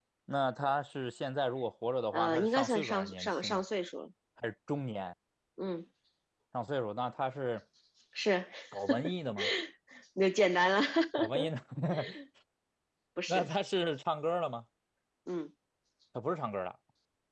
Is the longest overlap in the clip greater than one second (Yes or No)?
Yes